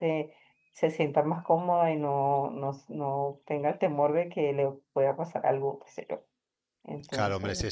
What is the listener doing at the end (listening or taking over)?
taking over